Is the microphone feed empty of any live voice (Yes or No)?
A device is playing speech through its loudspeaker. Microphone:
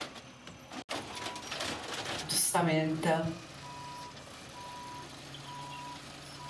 No